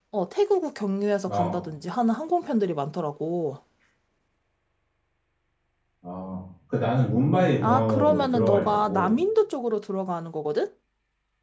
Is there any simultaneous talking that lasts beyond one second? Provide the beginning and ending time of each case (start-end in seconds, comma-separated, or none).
7.6-9.2